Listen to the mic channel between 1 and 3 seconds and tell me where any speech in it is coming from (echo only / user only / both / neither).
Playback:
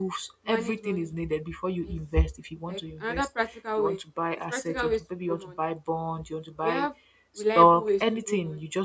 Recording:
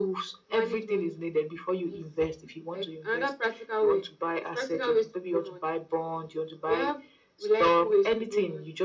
echo only